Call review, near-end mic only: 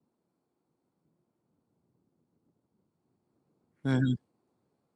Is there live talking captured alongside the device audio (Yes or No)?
Yes